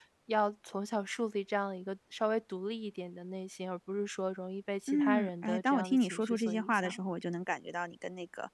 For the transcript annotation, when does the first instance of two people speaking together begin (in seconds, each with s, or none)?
4.9 s